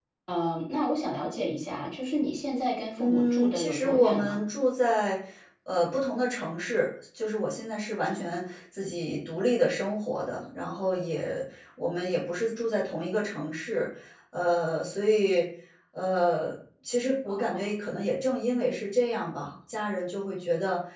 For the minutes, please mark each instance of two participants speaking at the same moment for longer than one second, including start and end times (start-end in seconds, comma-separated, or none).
3.0-4.4